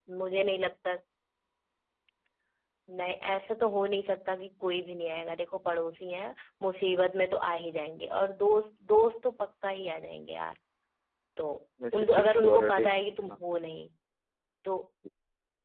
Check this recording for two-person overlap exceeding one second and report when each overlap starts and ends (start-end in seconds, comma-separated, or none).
11.9-13.4